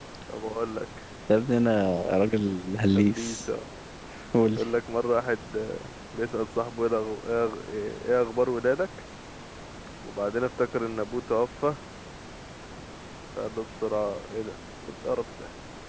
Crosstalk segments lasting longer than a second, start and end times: none

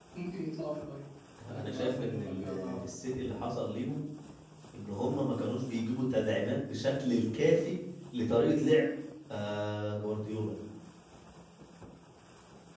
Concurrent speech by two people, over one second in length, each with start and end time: 1.4-2.8

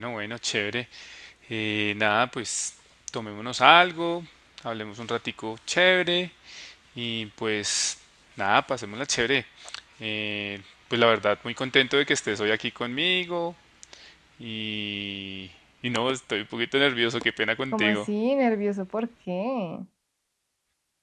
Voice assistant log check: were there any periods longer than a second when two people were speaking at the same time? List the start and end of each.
none

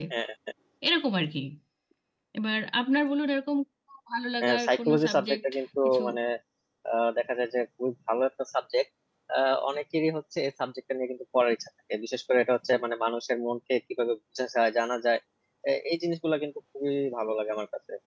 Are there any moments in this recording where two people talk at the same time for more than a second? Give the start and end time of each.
4.4-6.0

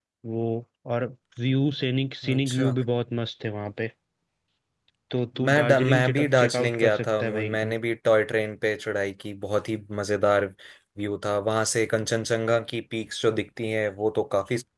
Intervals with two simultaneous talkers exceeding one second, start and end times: 5.5-7.8

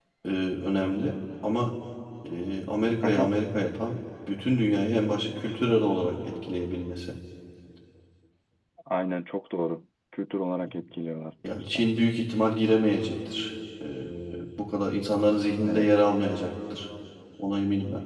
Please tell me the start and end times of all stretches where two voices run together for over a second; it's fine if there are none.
none

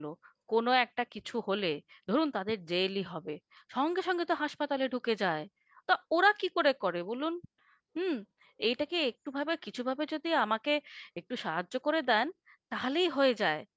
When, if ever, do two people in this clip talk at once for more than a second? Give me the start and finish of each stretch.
none

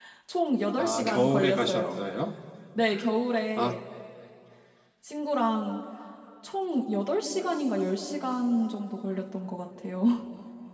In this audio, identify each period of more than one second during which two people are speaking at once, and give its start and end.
0.8-2.0

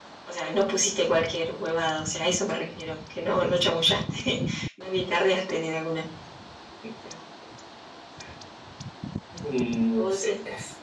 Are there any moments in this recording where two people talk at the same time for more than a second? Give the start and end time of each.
none

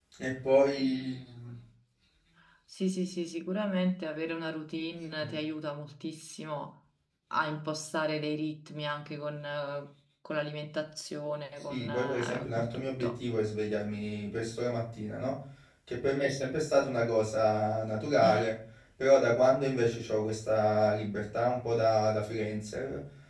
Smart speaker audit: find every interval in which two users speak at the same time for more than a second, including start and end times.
11.7-13.2

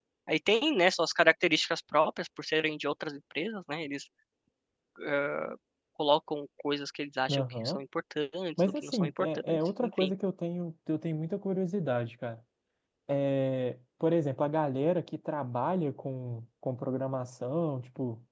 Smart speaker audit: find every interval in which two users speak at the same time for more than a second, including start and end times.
8.6-10.1

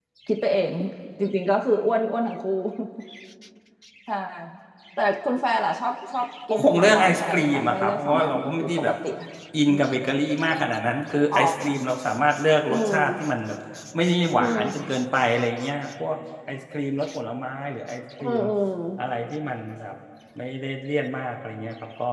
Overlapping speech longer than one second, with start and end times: 6.5-8.9

